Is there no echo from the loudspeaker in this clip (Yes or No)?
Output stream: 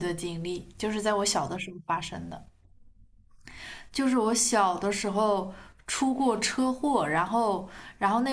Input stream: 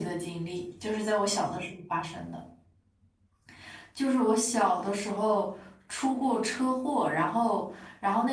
No